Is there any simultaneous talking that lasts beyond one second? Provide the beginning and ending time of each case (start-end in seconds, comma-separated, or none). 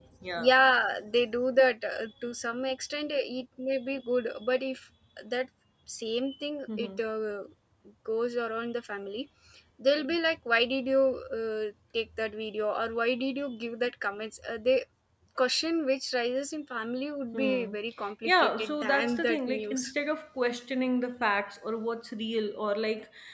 18.2-19.9